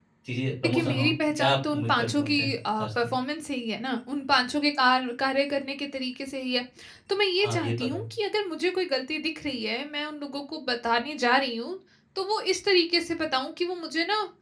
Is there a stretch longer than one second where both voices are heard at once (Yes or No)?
Yes